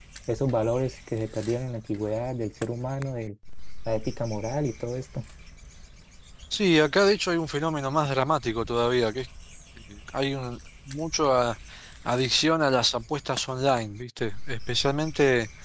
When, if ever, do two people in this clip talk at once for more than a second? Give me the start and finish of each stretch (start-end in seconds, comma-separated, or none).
none